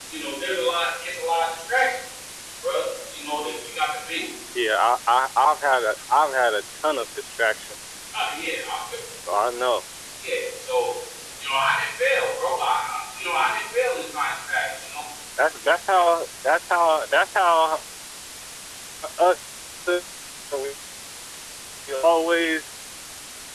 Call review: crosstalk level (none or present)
none